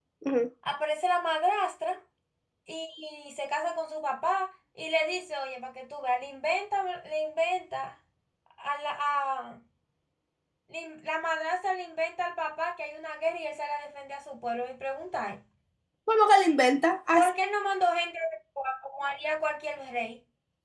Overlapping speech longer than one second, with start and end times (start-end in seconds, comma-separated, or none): none